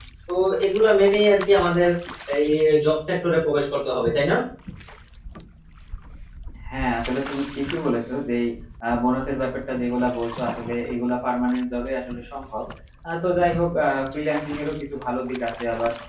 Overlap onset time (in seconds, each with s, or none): none